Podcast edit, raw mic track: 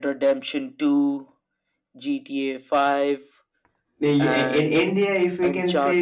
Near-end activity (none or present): present